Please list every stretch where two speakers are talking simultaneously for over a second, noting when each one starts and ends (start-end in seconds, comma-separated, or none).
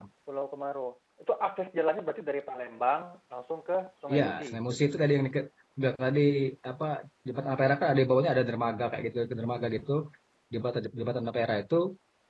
none